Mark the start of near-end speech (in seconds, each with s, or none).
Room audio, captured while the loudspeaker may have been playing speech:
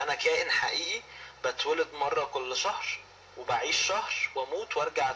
none